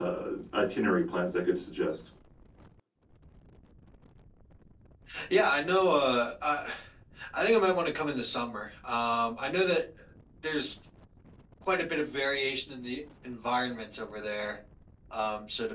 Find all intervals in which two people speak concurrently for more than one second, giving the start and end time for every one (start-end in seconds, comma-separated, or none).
none